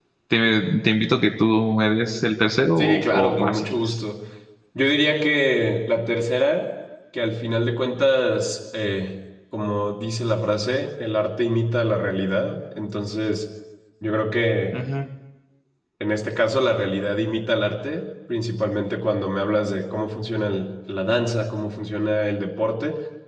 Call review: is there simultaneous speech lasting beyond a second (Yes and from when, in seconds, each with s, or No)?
Yes, from 2.8 s